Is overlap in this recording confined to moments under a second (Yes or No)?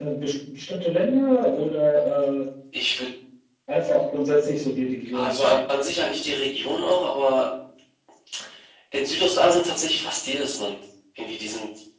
Yes